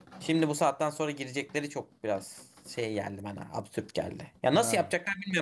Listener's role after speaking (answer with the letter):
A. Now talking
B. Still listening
B